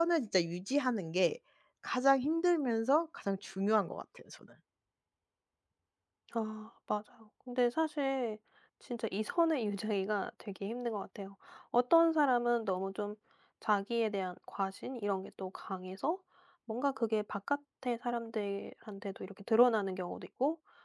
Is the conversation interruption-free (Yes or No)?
Yes